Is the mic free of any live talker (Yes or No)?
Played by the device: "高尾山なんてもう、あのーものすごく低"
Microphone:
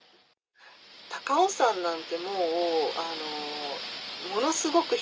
Yes